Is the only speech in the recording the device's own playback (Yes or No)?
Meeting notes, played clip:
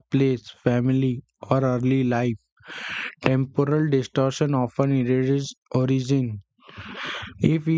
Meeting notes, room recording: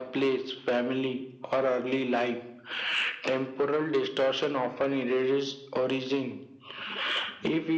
Yes